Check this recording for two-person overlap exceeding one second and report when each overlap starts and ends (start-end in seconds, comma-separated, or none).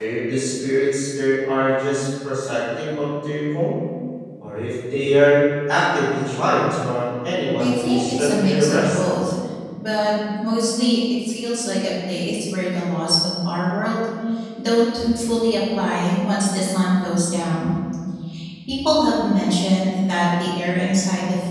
7.6-9.0